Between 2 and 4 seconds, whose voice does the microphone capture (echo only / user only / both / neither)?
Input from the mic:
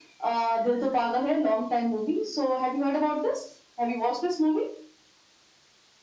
echo only